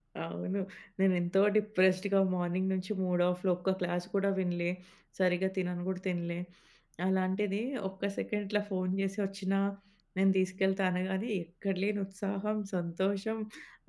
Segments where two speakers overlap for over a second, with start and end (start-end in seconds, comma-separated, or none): none